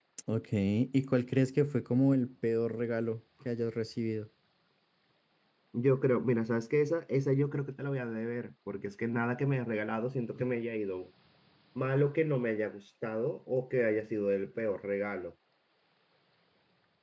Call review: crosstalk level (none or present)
none